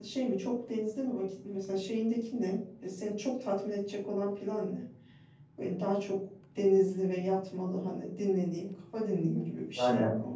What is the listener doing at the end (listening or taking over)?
taking over